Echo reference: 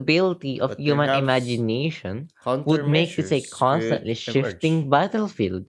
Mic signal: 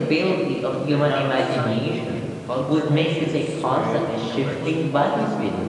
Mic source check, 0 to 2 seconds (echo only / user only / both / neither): both